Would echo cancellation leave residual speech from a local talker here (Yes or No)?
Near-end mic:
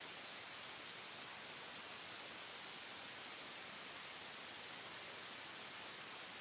No